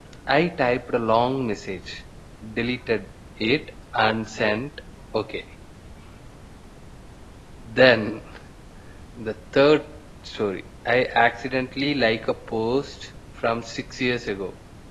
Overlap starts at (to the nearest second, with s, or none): none